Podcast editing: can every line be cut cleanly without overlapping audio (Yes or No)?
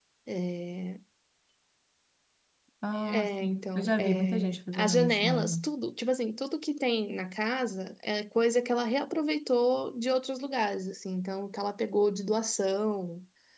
No